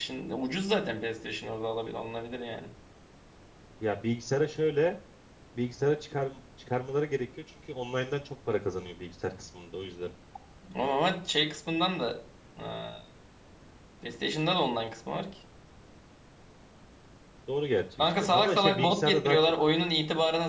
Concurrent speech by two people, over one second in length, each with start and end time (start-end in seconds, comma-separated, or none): 18.0-19.5